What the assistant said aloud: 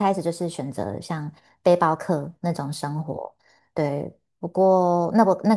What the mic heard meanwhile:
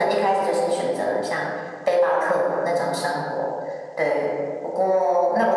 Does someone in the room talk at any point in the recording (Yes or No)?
No